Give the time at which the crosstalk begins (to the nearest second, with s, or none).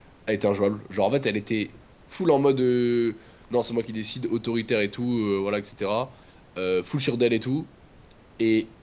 none